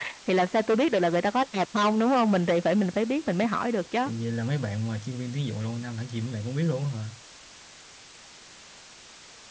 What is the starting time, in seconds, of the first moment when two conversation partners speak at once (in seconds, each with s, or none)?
none